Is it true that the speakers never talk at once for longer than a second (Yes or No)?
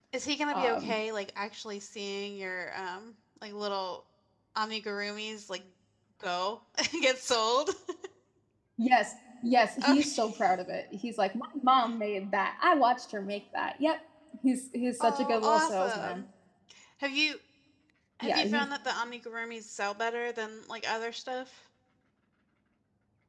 No